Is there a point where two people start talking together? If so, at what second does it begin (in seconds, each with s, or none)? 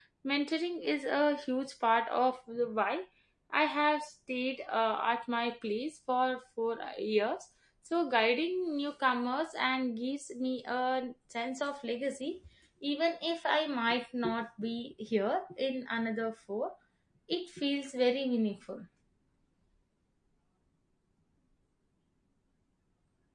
none